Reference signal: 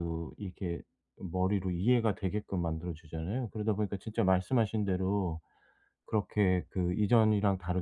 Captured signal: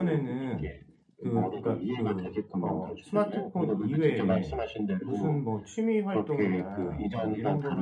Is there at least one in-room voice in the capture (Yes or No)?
Yes